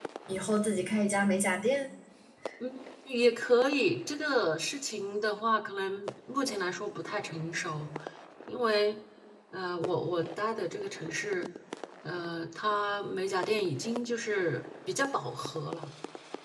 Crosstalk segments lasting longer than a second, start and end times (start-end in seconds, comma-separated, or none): none